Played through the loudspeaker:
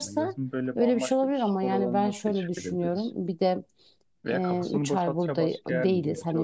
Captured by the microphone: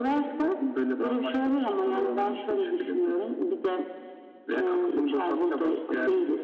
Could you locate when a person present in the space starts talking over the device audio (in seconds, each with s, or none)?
none